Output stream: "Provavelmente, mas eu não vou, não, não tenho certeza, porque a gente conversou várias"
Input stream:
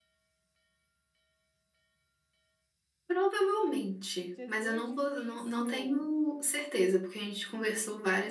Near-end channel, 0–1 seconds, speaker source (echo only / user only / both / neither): neither